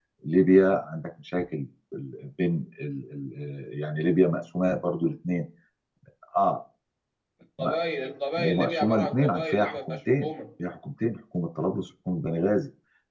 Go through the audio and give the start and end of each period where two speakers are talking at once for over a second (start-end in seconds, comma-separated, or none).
8.4-10.3